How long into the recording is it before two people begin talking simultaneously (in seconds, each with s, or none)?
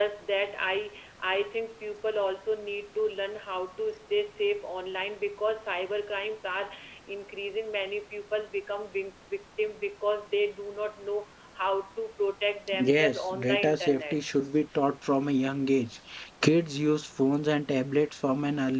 12.7 s